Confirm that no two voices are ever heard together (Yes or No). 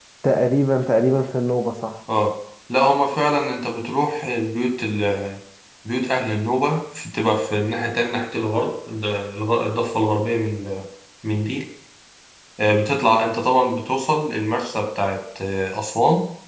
Yes